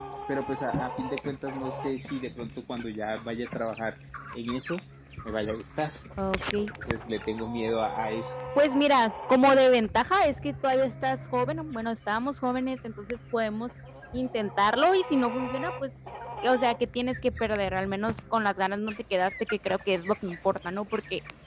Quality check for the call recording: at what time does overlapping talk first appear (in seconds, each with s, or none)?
none